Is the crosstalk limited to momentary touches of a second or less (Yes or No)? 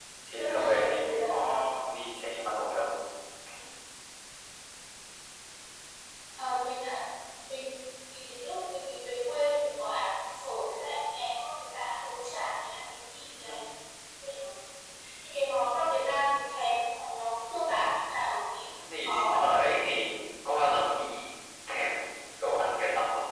No